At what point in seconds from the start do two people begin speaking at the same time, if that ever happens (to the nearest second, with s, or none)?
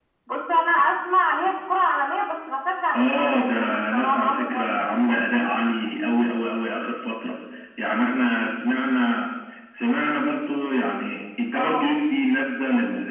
3 s